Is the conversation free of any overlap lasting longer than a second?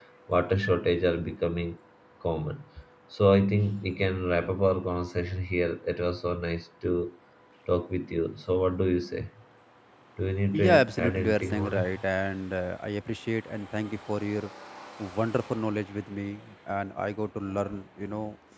No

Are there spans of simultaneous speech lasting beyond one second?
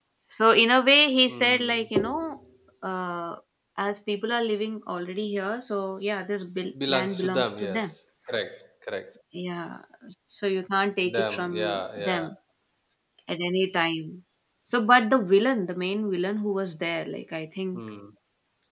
Yes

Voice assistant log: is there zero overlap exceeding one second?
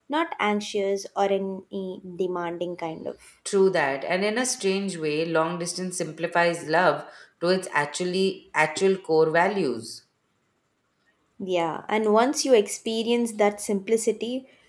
Yes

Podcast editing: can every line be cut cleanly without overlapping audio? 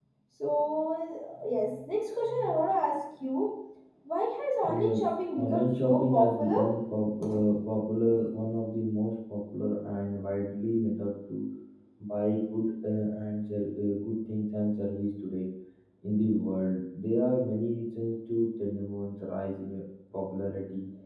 No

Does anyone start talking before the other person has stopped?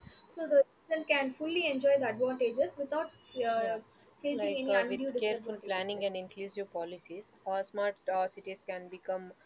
Yes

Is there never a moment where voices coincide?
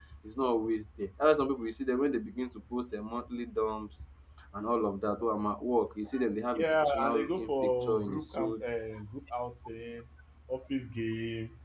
No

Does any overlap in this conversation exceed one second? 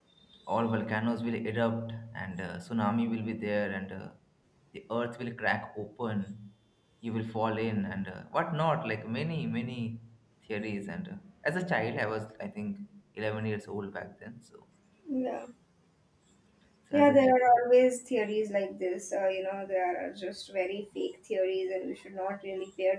No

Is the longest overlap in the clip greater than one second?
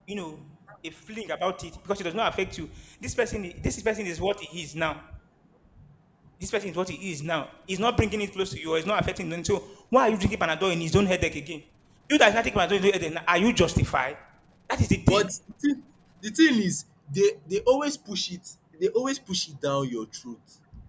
No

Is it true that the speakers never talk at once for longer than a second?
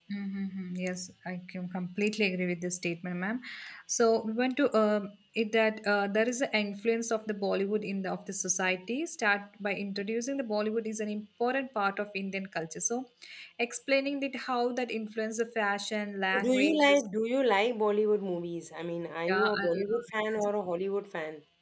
No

